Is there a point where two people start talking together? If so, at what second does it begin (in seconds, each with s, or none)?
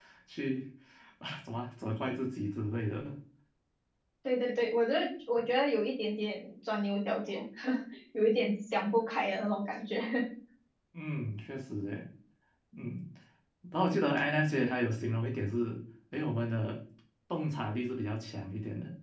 none